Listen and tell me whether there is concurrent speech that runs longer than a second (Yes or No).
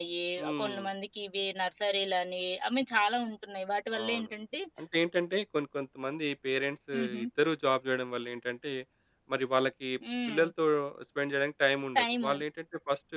No